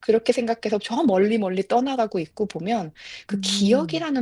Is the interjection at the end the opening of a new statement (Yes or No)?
No